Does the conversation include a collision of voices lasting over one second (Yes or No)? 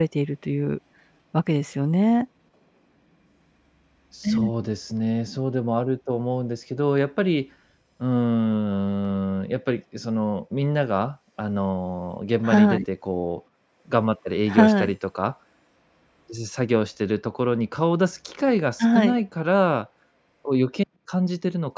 No